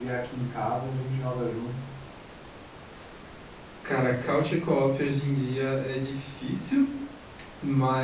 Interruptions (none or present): none